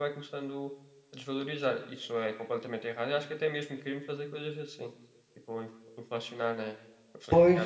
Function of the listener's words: taking over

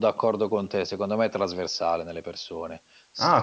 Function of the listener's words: taking over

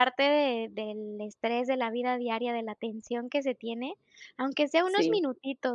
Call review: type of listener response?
listening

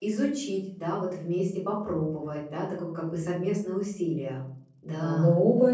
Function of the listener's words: taking over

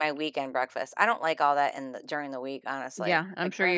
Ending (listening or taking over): taking over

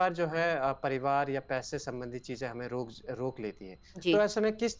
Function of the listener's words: listening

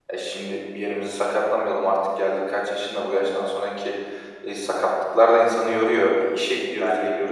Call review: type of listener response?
taking over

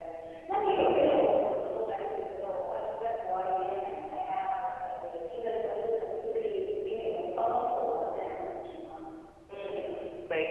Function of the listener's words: taking over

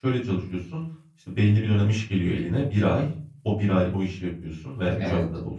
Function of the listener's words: listening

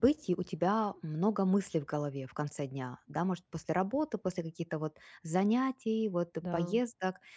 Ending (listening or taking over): listening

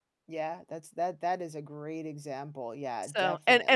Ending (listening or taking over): taking over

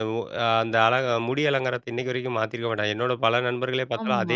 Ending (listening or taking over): listening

